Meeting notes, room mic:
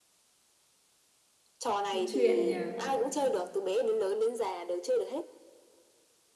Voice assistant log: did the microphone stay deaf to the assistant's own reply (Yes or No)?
No